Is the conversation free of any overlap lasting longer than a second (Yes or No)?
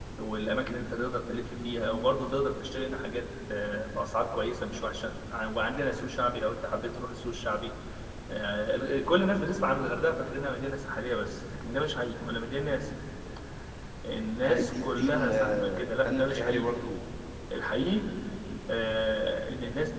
No